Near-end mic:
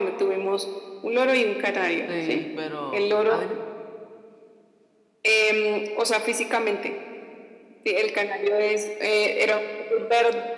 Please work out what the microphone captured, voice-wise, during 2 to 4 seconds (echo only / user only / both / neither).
both